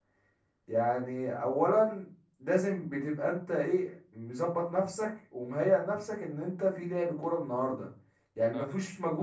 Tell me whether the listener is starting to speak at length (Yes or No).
No